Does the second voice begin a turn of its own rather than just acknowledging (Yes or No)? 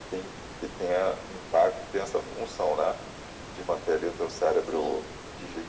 No